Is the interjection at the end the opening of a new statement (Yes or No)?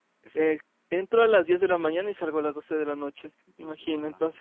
No